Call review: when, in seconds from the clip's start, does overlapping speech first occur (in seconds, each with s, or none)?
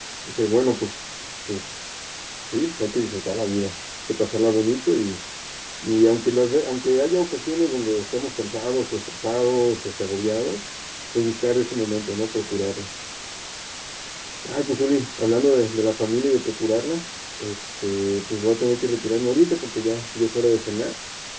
none